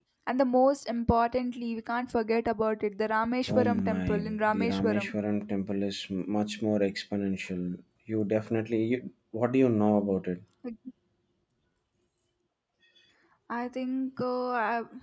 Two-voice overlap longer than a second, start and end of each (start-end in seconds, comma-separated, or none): 3.5-5.1